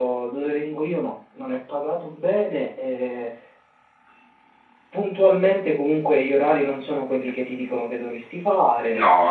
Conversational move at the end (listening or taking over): taking over